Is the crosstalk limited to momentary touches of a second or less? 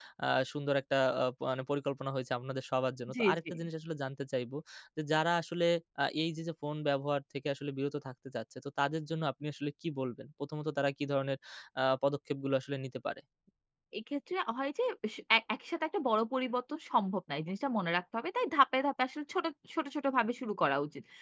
Yes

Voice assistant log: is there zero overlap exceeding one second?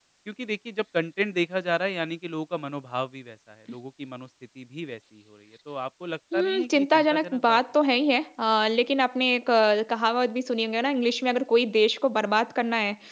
No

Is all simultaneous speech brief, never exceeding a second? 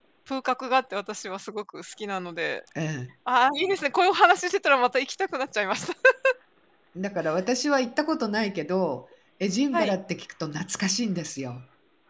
Yes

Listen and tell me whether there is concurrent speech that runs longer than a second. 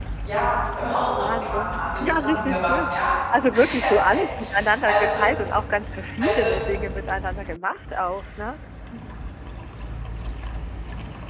Yes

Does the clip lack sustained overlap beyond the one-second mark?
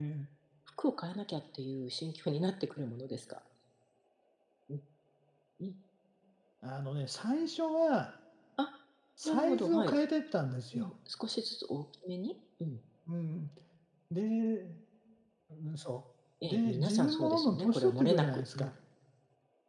No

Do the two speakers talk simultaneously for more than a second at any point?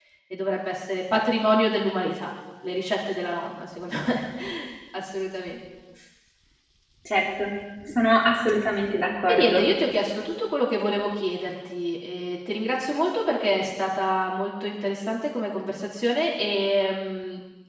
No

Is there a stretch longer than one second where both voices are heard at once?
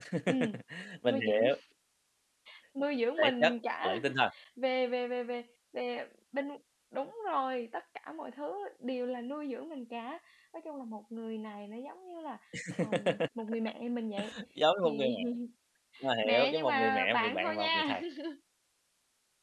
Yes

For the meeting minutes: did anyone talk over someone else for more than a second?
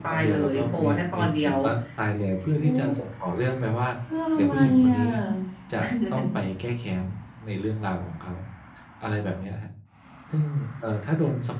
Yes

